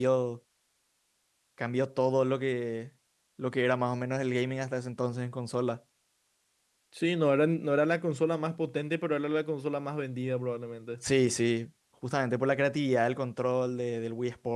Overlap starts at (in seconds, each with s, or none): none